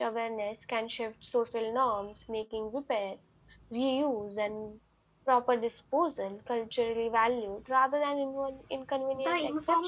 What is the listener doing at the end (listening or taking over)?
taking over